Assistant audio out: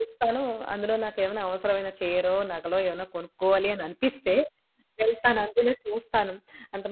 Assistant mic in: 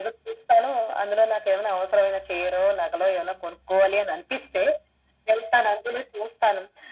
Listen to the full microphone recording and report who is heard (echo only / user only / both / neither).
echo only